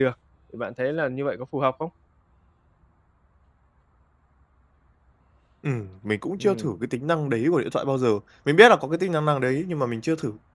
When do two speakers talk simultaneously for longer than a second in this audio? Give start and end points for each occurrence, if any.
none

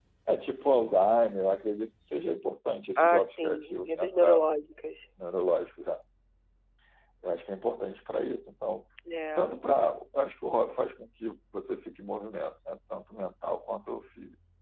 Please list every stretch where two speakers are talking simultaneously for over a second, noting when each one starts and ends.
3.0-4.4

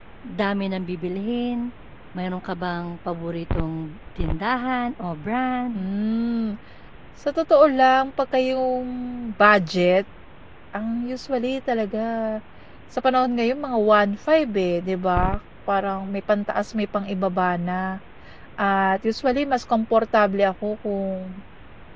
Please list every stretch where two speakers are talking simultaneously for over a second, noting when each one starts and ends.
none

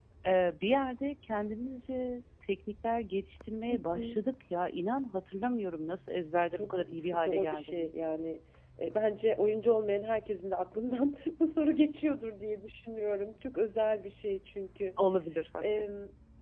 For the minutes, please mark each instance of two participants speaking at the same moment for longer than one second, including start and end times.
6.5-7.9

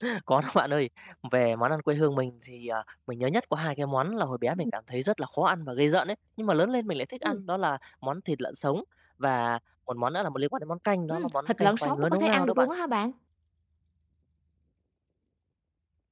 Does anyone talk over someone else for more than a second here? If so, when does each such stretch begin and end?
11.1-12.7

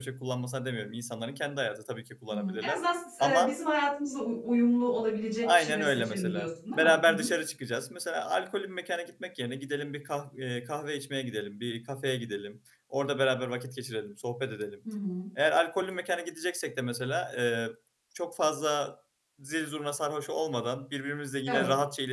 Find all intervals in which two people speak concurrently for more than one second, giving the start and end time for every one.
5.4-7.3

